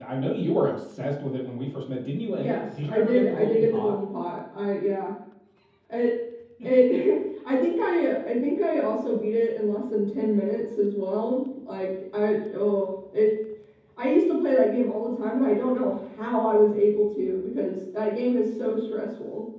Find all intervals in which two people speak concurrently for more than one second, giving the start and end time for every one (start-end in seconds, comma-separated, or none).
2.4-3.9